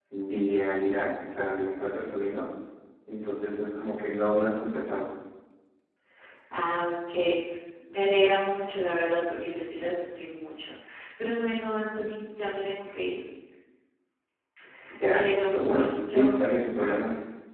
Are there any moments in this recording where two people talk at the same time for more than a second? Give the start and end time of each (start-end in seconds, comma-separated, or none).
15.1-16.4